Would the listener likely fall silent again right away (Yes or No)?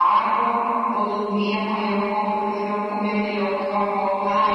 No